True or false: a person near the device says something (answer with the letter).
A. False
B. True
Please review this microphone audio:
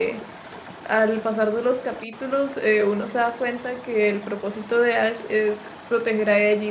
B